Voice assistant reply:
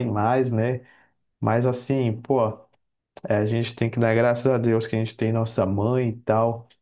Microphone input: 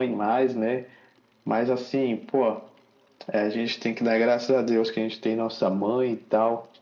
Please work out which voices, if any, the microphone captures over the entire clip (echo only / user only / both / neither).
echo only